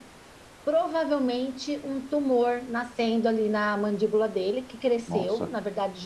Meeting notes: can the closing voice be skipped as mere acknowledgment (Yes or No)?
Yes